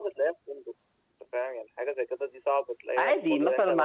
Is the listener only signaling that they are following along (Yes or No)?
No